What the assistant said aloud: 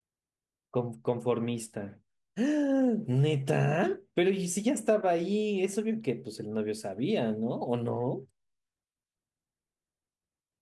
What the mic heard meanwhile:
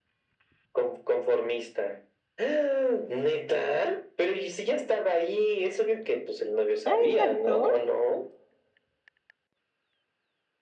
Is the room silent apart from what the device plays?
No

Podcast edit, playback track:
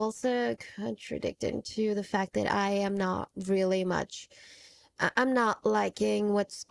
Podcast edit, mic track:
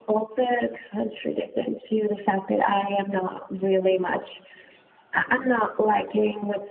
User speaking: Yes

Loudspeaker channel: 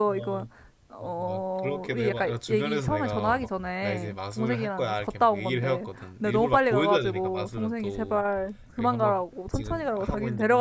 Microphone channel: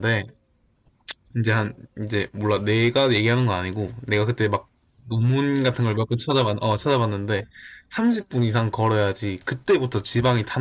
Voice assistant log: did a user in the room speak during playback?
Yes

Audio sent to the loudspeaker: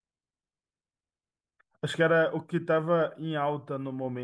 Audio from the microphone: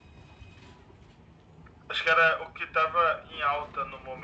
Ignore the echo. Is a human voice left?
No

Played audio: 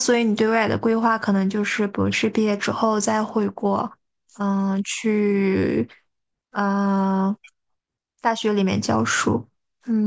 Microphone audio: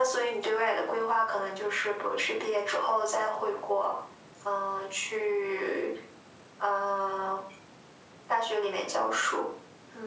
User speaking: No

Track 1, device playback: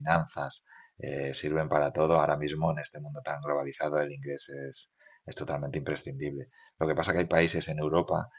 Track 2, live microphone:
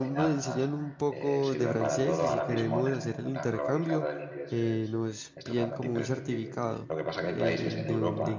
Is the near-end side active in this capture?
Yes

